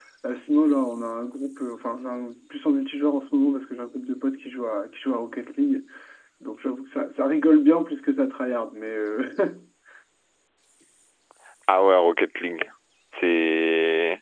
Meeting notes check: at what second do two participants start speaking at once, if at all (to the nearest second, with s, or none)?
none